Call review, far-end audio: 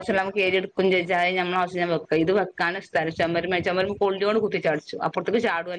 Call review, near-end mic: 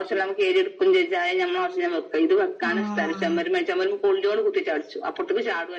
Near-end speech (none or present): present